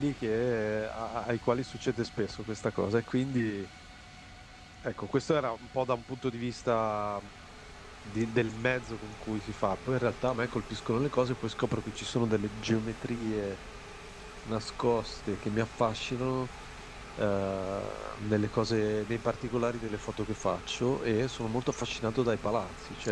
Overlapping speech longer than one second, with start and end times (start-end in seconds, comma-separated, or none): none